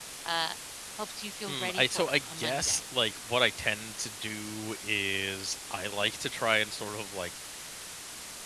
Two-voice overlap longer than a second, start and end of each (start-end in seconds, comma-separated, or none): 1.5-2.8